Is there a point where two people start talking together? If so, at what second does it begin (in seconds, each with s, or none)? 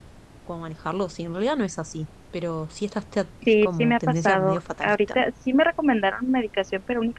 3.5 s